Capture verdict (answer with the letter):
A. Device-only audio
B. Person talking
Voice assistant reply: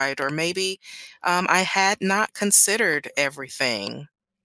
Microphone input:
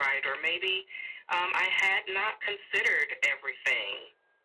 A